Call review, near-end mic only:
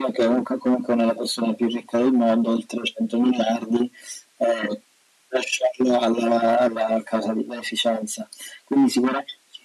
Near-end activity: none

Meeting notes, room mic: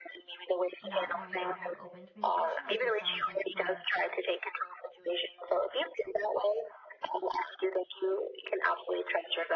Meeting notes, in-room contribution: present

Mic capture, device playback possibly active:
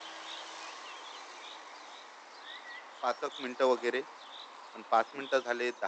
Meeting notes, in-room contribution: present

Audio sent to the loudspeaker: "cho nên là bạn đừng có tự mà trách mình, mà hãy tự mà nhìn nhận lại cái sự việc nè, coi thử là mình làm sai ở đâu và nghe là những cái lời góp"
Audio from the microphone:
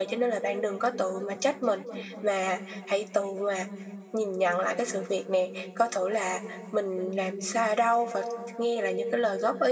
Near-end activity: none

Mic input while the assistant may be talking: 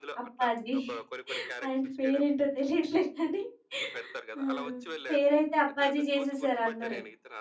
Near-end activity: present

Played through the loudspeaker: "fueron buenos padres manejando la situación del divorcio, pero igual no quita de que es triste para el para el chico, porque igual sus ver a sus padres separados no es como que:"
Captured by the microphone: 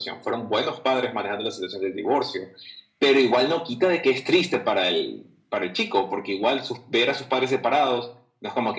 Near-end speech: none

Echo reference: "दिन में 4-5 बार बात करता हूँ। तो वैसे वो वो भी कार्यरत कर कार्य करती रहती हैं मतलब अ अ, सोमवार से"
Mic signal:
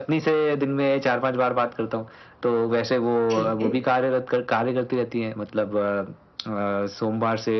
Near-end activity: present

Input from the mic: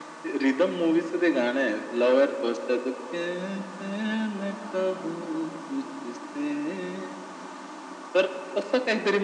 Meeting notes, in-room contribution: none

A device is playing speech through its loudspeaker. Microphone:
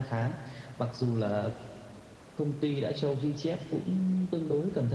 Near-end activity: none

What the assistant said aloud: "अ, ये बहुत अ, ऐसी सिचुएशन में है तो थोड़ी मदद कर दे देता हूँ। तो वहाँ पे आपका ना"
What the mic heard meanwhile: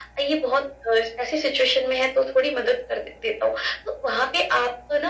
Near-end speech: none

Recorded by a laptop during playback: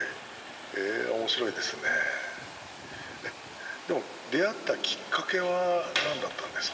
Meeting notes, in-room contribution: none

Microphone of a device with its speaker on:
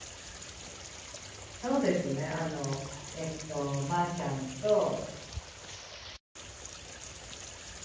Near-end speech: present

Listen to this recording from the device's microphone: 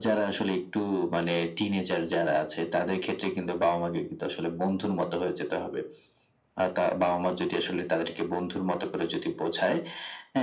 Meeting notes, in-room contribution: none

